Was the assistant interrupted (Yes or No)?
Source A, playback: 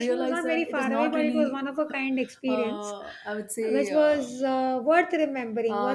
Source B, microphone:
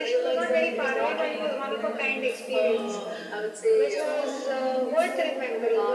Yes